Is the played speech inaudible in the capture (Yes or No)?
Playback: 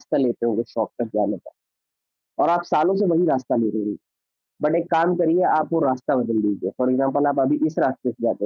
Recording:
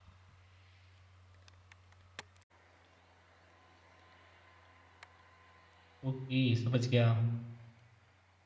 Yes